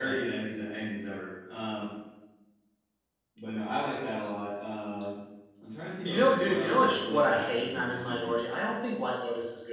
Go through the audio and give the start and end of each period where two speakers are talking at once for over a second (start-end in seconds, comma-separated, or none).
6.0-8.3